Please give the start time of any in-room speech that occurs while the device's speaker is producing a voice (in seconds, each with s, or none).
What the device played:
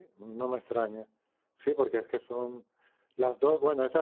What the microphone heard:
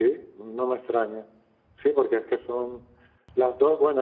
none